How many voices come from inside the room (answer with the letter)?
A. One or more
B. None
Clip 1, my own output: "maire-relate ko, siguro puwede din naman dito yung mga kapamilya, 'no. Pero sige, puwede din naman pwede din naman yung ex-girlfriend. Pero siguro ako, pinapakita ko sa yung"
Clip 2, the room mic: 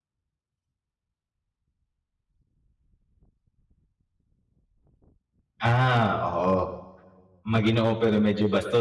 A